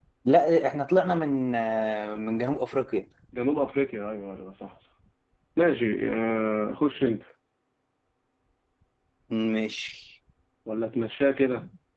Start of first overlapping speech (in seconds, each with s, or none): none